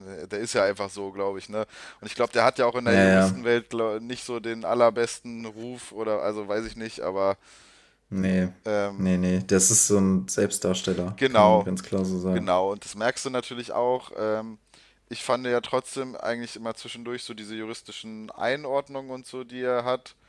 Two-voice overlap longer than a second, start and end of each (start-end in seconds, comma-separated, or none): none